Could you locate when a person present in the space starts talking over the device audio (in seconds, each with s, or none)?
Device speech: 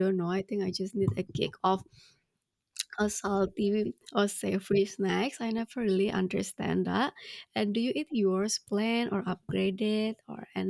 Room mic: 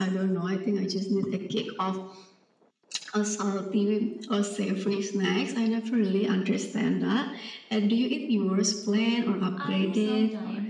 9.6 s